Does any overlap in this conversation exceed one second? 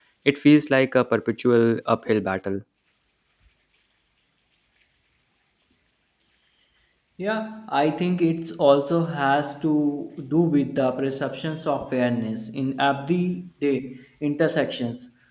No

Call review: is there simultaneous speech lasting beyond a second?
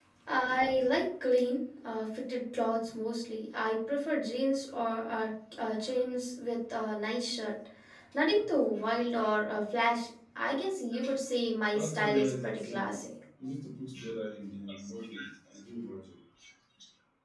Yes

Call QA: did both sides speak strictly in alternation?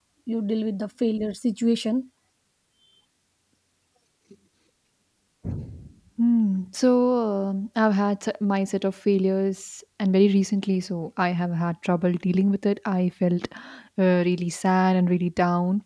Yes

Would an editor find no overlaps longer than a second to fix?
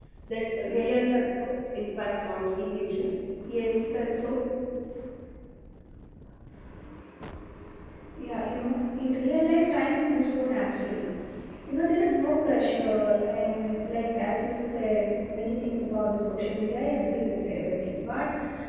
Yes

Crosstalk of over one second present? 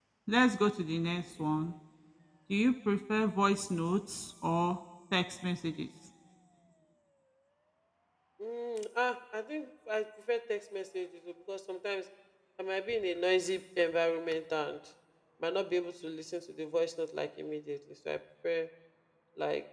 No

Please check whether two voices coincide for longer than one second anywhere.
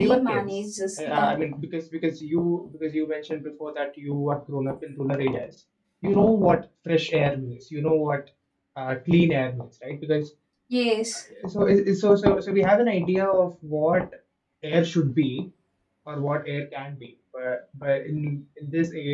No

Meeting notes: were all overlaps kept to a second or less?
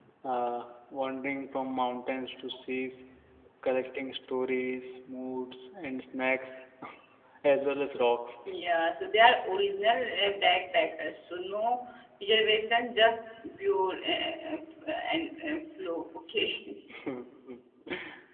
Yes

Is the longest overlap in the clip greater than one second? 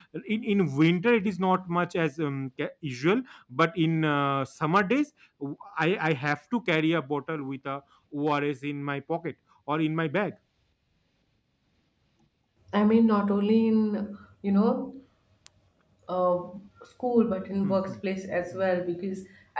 No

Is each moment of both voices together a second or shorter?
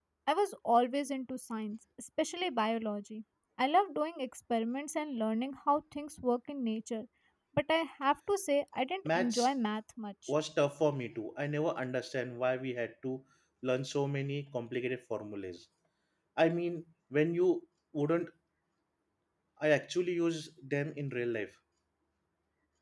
Yes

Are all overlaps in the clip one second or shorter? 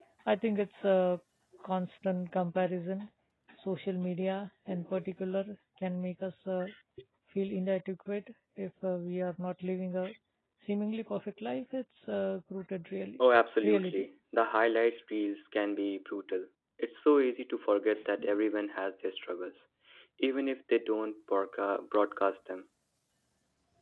Yes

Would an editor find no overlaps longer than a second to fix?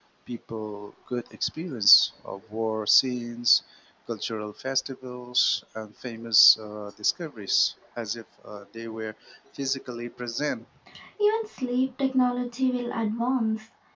Yes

